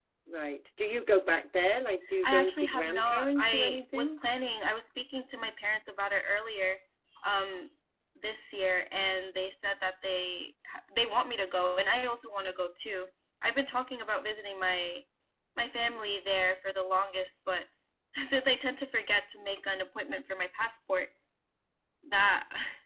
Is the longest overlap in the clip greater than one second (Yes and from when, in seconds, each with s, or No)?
Yes, from 2.2 s